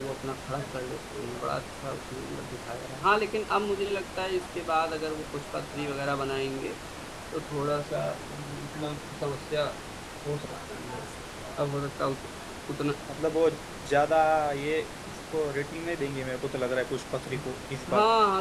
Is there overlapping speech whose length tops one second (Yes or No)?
No